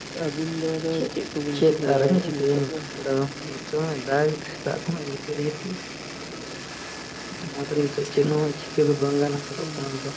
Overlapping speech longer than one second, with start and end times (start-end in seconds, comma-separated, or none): 1.5-2.8